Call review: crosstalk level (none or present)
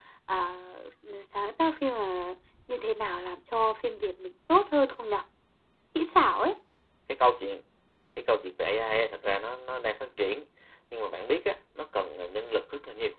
none